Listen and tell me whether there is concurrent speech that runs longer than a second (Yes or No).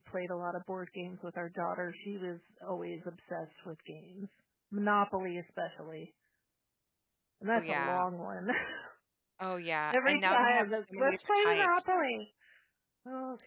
Yes